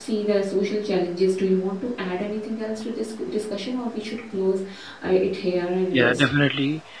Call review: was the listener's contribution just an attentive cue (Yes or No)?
No